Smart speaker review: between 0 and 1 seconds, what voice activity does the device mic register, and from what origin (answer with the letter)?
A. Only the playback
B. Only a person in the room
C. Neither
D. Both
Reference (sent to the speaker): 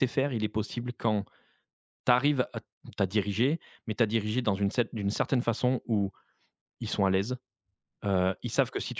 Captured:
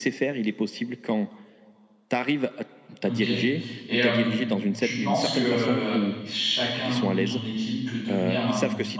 A